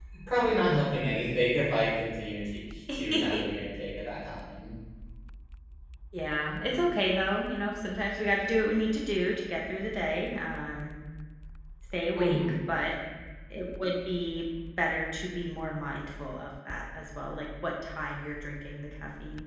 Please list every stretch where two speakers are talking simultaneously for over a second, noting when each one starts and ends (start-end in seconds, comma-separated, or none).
none